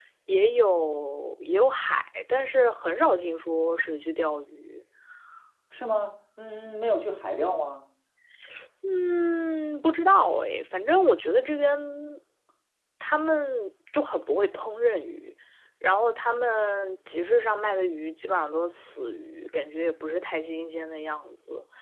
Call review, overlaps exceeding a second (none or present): none